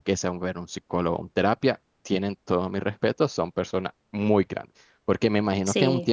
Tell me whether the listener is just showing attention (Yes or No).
Yes